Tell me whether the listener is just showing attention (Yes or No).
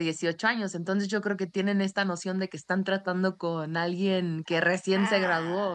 No